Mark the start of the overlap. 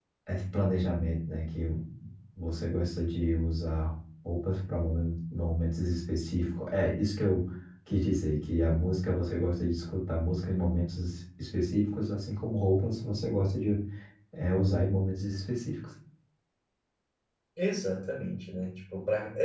none

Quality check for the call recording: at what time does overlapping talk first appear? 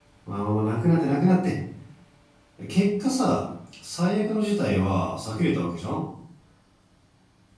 none

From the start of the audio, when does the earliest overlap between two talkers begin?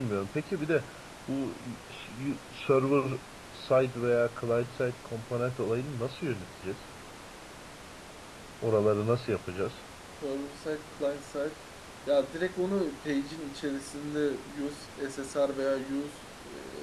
none

